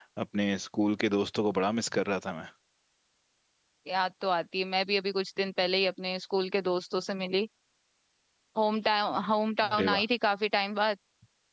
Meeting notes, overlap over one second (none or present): none